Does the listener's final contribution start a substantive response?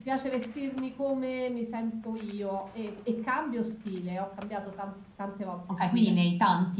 Yes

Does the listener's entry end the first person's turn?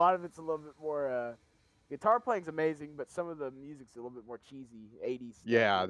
Yes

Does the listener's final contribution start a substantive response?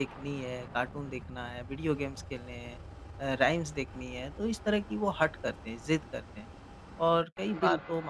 No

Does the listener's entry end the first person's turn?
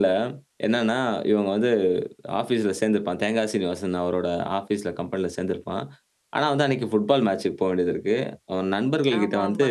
No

